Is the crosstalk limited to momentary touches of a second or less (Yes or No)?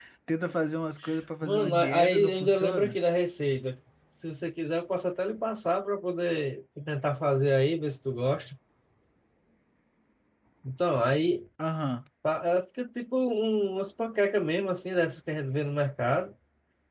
No